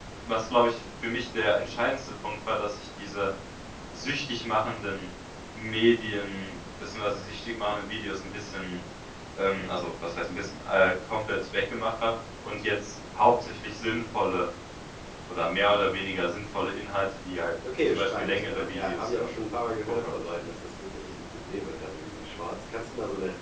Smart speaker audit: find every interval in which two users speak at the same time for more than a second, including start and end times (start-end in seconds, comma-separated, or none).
17.9-19.3